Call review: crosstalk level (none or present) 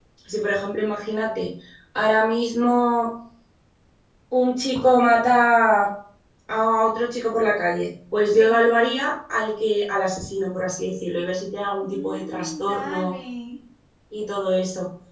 present